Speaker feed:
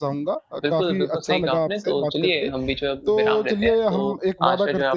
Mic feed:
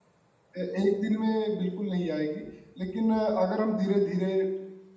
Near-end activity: present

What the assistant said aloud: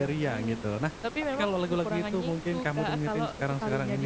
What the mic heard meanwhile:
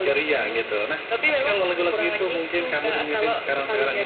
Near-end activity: none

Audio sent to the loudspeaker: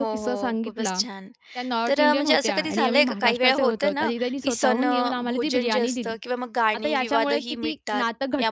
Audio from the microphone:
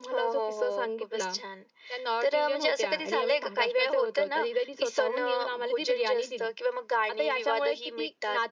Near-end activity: none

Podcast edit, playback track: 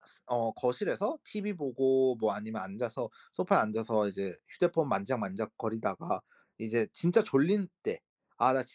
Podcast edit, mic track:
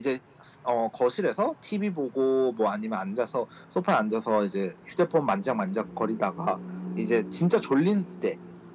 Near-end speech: none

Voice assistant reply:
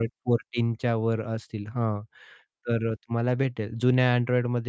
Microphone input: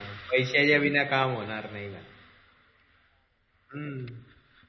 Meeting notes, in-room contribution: present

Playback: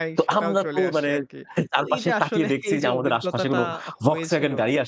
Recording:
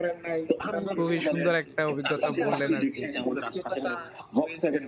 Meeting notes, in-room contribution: present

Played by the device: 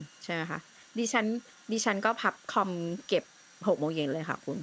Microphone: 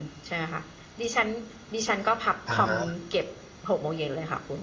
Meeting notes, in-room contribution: present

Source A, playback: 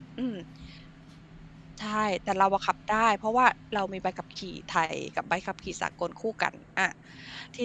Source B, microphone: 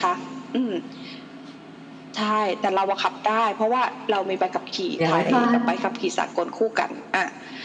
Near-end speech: present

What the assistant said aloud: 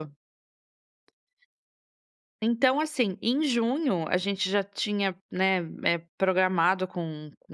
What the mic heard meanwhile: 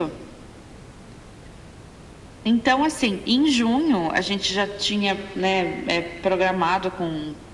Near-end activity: none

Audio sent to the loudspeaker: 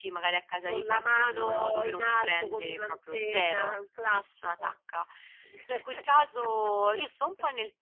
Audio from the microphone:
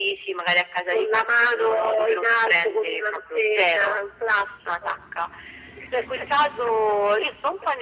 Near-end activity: none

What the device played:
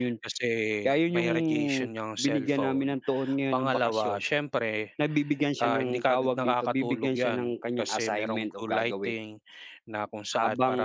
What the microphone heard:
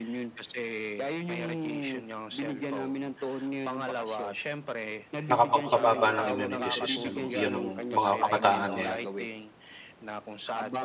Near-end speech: present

